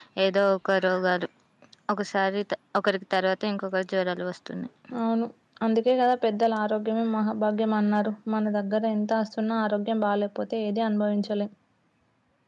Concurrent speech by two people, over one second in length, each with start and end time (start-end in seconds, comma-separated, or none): none